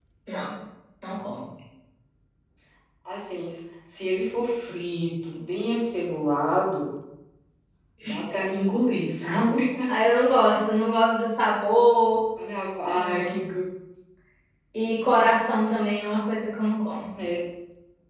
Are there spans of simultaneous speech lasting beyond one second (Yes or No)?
No